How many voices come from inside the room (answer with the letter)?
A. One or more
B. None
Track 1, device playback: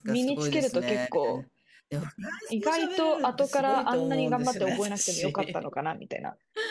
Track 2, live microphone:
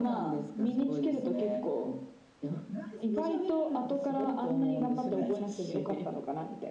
B